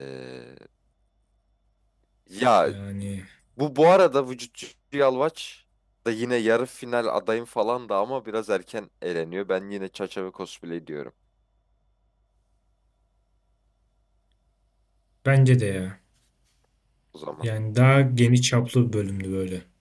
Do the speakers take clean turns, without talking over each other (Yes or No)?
Yes